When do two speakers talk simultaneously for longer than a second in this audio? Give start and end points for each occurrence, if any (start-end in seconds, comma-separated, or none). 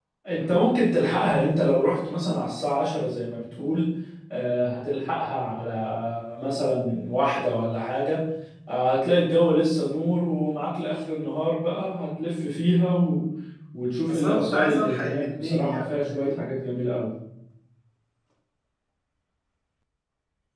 14.1-16.4